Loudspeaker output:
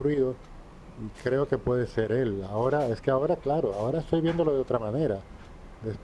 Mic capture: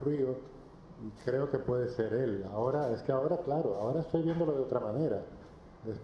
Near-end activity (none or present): none